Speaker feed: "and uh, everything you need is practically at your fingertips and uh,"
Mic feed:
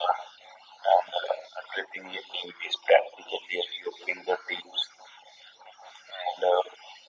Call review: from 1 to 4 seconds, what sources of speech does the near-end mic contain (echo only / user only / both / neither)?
echo only